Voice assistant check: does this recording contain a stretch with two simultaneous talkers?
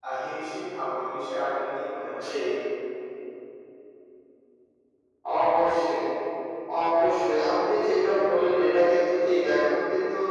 No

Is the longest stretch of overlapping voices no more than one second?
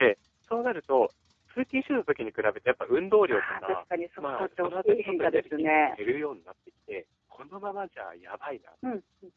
No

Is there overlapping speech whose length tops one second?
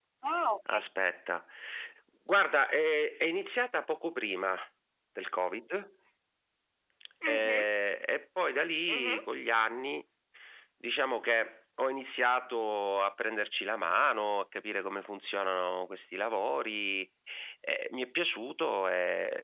No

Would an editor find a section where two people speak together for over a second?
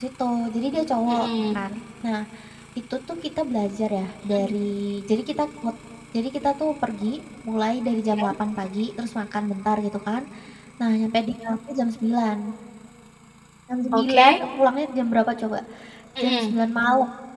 No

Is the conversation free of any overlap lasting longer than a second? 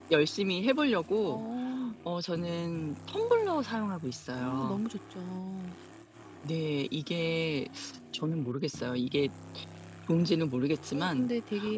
Yes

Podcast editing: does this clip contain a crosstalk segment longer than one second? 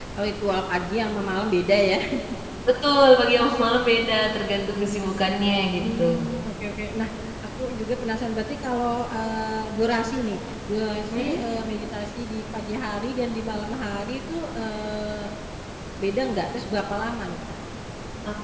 No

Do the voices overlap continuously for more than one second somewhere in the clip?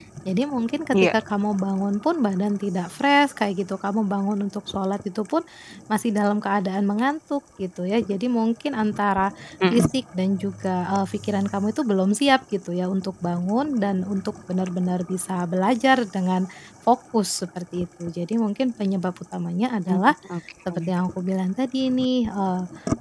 No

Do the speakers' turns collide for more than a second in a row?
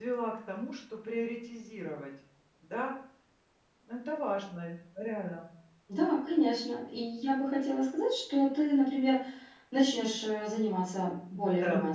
No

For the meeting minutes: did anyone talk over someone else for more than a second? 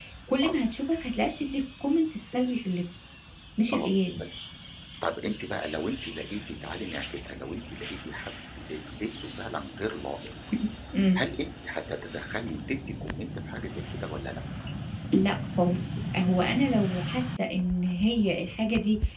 No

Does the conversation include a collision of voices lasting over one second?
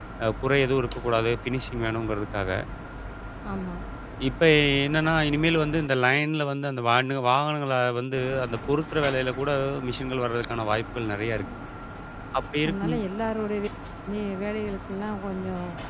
No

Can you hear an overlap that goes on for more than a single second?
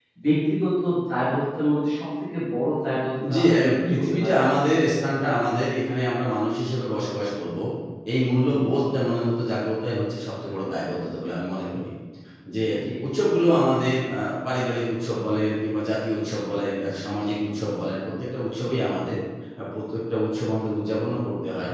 Yes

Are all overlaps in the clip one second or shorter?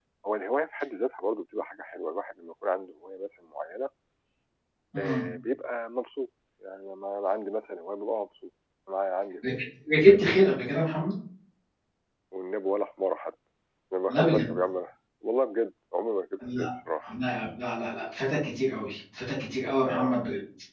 Yes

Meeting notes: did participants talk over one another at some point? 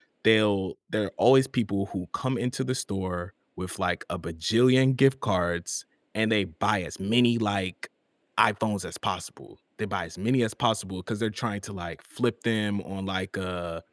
No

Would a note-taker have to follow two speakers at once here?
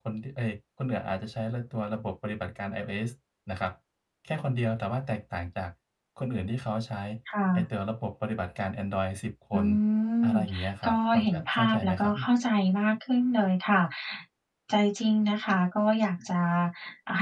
Yes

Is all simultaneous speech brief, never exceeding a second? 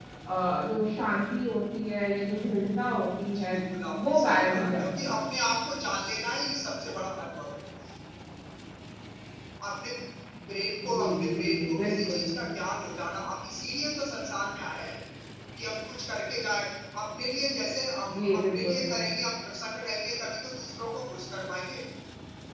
No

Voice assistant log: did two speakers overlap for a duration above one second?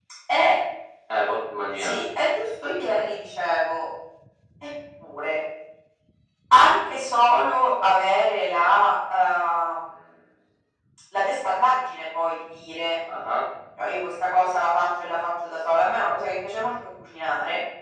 No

